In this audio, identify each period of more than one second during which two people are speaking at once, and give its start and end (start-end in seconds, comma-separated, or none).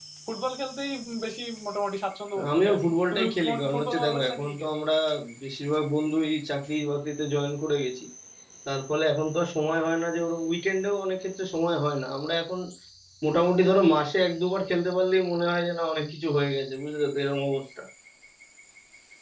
2.5-4.7